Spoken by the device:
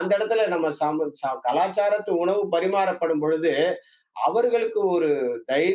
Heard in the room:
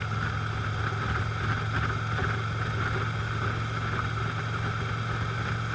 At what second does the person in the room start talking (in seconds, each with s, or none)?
none